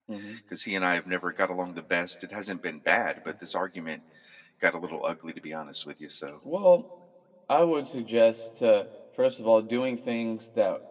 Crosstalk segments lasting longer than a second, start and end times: none

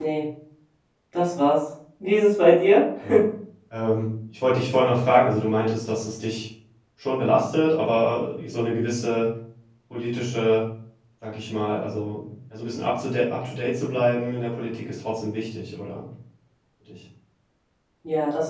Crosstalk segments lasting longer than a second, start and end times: none

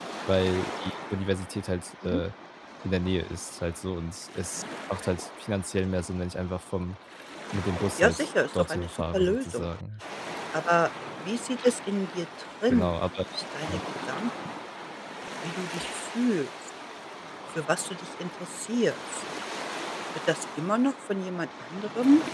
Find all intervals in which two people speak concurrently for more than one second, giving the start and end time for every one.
8.0-9.7

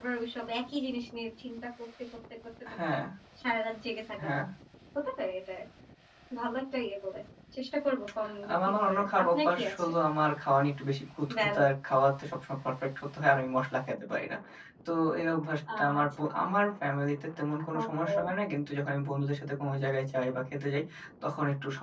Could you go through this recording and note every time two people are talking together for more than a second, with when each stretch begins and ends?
8.5-9.9

